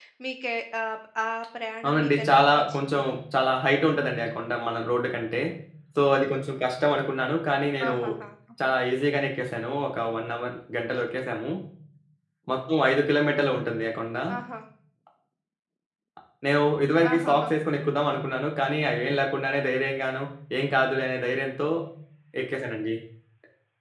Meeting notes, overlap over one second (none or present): present